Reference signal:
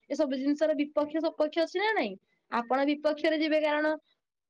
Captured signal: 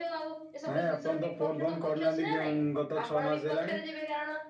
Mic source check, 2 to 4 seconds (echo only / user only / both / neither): both